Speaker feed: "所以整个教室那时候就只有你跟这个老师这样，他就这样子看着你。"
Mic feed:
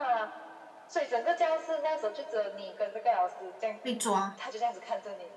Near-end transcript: 被抓

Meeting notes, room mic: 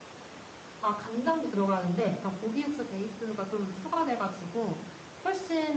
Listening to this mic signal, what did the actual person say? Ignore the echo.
none

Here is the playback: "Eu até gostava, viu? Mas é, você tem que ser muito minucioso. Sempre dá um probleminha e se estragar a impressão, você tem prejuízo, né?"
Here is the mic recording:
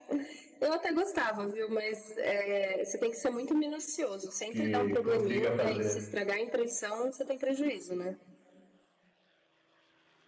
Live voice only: que consiga fazer.

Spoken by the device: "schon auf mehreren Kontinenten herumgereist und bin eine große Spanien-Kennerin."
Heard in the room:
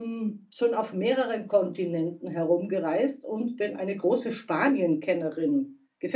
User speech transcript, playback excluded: none

